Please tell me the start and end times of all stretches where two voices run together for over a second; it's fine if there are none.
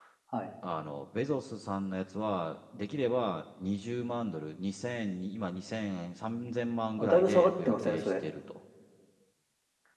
7.0-8.2

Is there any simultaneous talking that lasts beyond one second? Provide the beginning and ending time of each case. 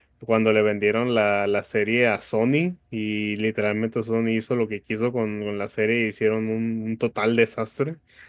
none

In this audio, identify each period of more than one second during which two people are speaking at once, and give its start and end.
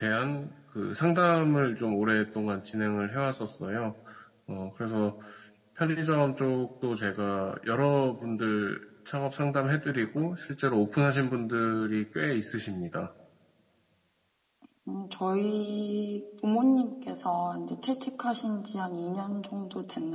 none

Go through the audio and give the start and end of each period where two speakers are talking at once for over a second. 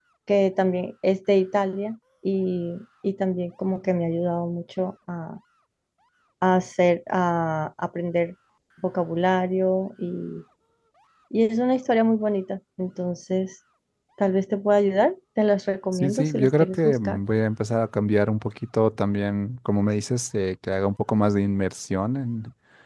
15.9-17.2

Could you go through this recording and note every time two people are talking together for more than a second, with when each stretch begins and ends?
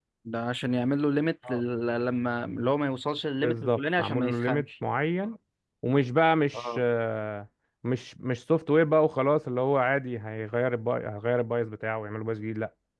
3.4-4.7

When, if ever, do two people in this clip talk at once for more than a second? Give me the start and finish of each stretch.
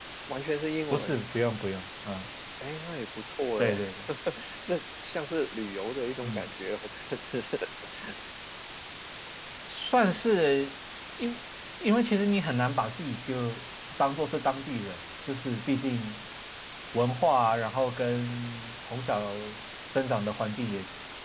none

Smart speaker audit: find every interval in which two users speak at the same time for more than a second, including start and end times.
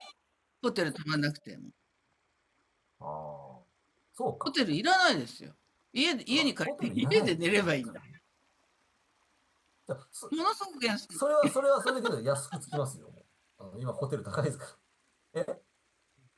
6.3-7.8

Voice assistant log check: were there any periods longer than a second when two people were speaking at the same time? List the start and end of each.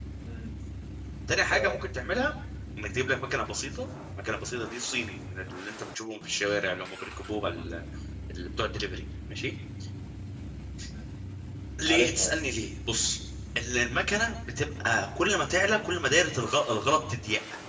none

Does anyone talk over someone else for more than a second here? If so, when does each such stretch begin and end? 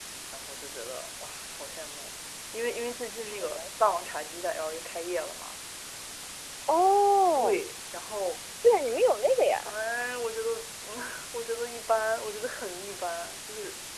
none

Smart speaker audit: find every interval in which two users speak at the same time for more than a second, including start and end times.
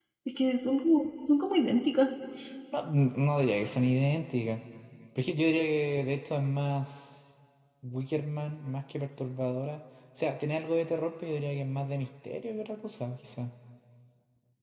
none

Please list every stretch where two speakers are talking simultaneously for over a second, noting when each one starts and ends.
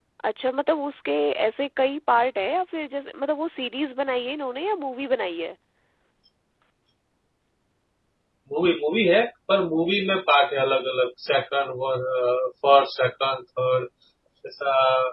none

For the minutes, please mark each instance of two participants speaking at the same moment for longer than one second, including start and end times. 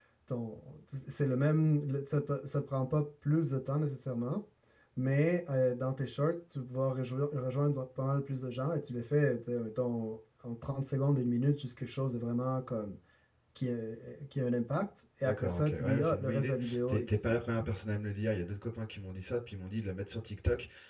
15.2-17.6

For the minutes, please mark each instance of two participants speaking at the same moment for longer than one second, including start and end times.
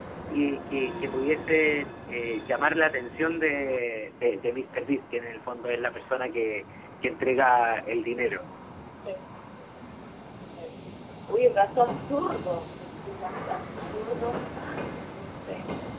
none

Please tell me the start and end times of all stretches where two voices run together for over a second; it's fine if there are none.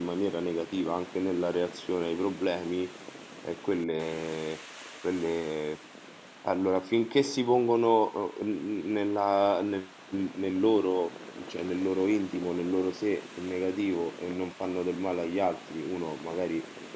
none

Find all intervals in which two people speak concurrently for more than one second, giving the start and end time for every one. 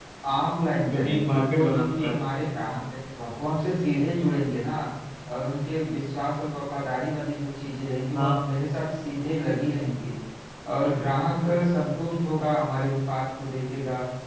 0.9-2.1

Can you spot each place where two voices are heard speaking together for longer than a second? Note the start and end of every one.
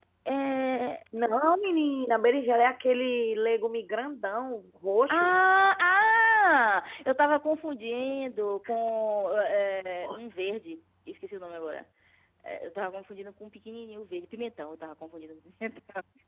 none

